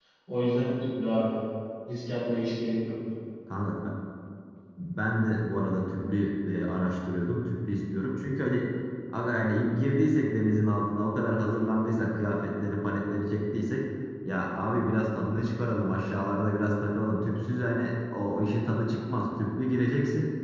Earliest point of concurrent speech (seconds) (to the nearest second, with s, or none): none